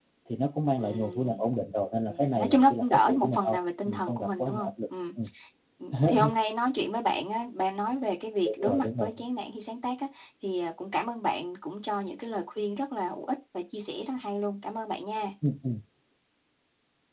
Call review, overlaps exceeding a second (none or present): present